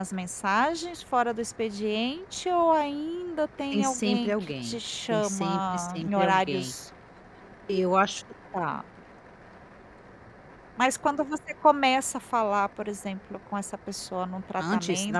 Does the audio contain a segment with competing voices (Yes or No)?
Yes